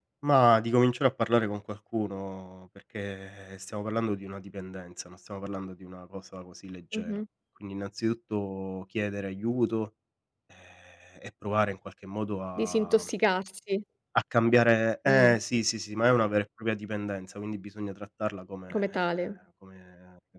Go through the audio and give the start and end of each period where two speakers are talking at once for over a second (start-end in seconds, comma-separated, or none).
none